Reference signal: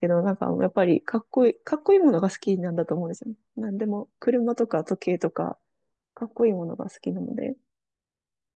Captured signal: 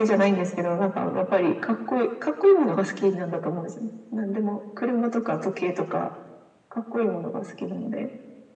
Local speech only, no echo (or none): none